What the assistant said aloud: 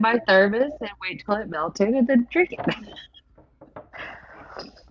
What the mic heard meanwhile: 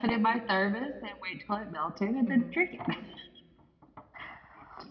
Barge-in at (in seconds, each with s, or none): 2.3 s